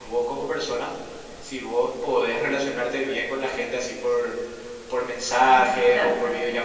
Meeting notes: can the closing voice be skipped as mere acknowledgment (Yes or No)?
Yes